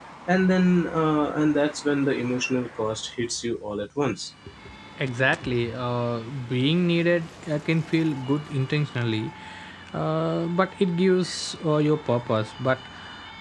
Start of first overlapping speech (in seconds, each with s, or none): none